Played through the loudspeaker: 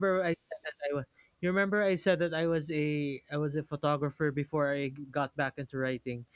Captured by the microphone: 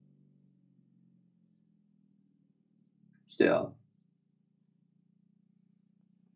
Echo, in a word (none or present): none